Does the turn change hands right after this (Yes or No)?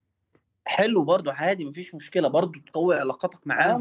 Yes